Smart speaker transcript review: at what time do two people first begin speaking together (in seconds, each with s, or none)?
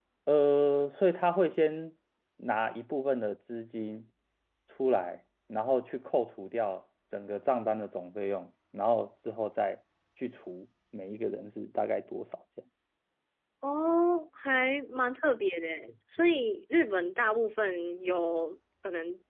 none